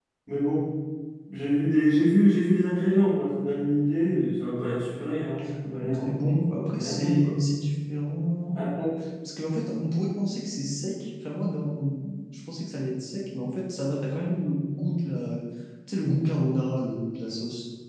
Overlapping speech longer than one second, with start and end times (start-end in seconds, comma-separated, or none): 5.8-7.3